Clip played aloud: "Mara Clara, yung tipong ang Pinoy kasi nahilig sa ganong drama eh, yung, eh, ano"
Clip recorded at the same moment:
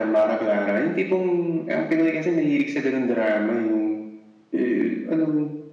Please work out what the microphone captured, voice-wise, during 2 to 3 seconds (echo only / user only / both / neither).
echo only